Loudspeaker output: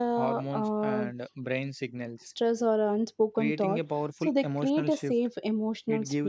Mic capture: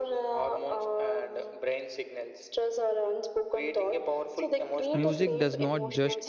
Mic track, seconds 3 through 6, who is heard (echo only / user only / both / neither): both